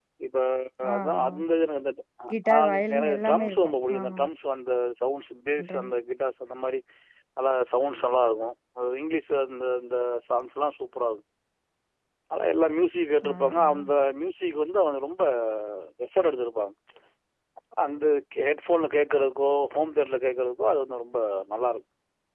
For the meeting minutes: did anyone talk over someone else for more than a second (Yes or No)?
Yes